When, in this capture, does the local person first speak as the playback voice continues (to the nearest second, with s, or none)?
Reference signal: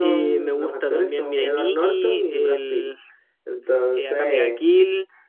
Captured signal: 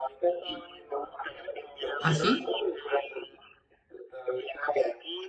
2 s